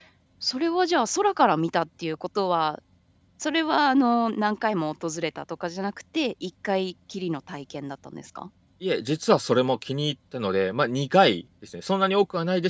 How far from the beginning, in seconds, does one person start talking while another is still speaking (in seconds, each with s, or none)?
none